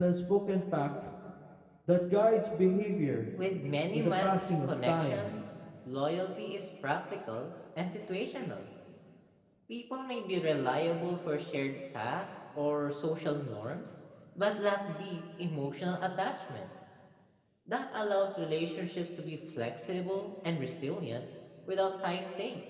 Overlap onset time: 3.9 s

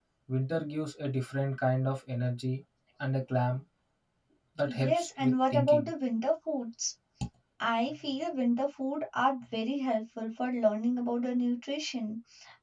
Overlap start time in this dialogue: 4.7 s

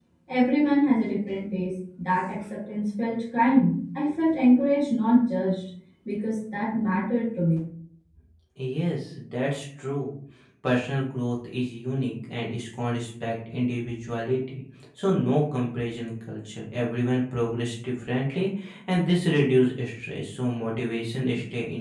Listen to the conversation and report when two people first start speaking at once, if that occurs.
none

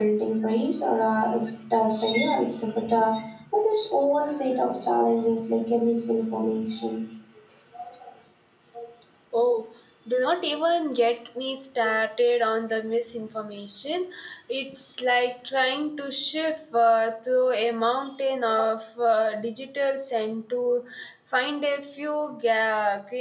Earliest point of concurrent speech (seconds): none

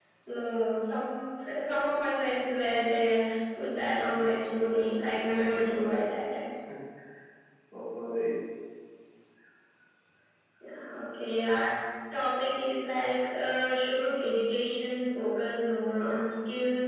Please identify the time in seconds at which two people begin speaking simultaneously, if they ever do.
4.1 s

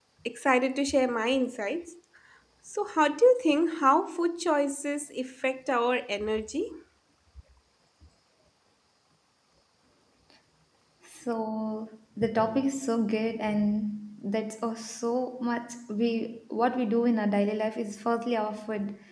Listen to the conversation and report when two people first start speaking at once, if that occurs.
none

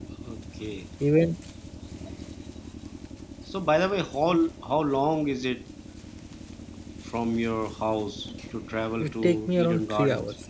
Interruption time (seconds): 9.0 s

